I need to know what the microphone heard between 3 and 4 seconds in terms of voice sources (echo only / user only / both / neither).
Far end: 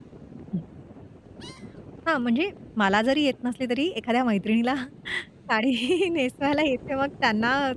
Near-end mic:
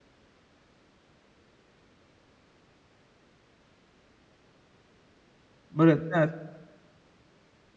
neither